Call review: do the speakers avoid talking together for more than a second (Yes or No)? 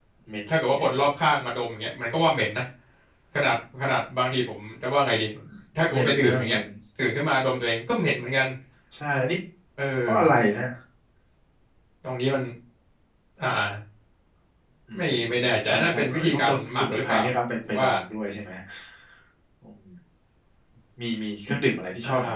No